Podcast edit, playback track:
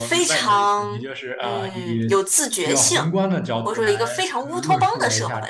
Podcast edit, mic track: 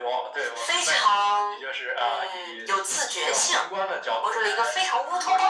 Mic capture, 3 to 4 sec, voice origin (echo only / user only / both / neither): echo only